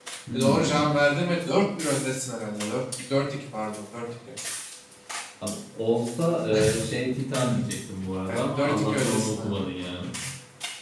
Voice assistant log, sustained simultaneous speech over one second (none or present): present